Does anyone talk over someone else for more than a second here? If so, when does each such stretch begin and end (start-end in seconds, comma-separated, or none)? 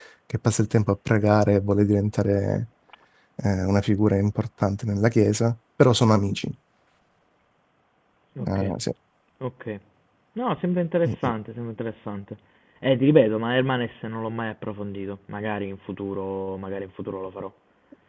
none